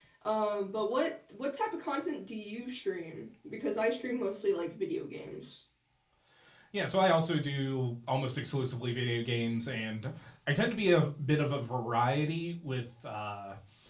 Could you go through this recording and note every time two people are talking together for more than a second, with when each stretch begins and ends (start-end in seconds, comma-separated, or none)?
none